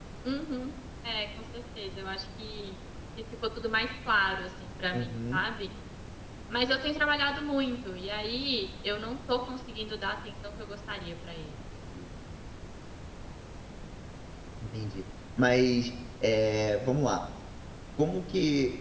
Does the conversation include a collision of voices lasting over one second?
No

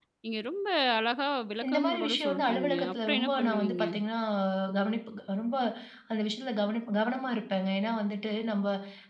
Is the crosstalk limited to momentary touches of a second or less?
No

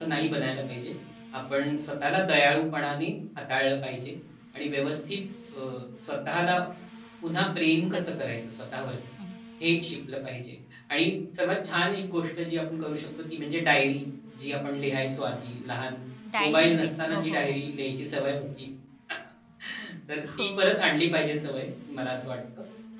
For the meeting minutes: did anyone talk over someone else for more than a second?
Yes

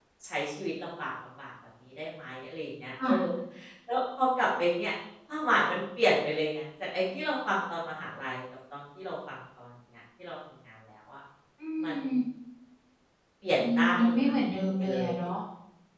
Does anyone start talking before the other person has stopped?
Yes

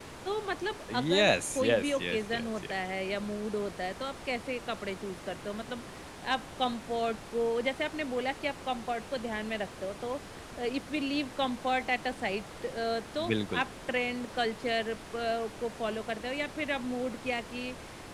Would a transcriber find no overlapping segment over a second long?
No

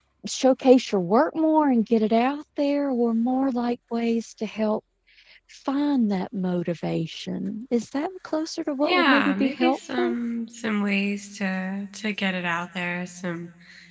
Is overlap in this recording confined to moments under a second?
No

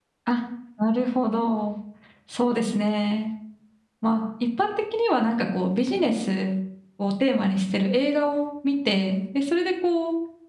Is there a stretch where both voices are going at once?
No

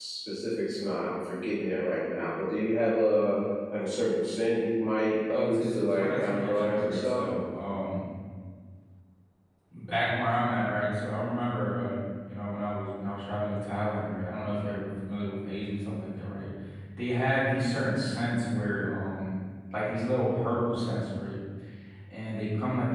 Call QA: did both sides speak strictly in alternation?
No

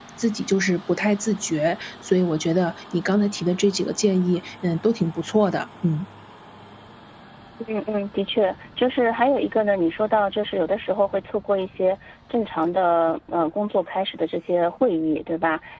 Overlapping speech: No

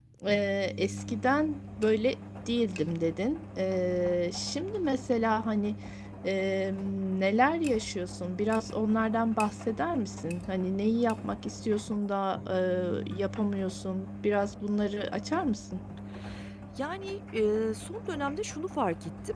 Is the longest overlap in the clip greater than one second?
No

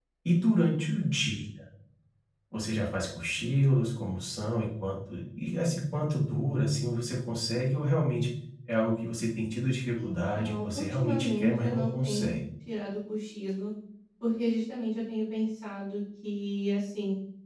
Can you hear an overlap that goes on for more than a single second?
Yes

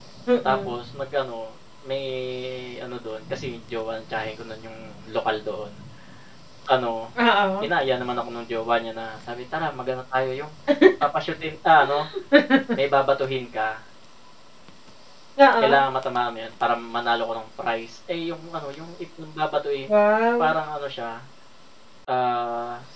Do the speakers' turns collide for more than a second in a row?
No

